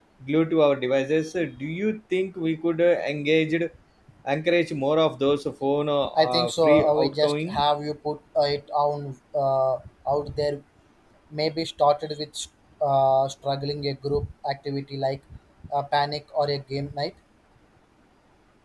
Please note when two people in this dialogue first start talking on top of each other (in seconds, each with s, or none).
6.2 s